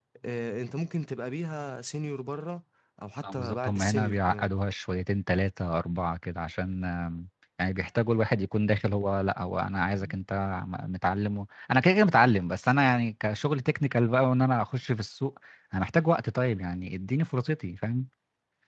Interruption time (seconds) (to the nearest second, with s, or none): 3 s